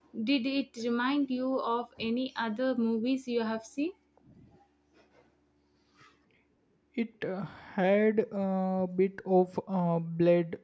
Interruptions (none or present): none